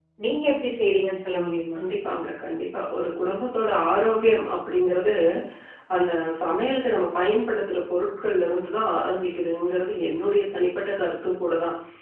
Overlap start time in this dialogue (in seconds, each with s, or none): none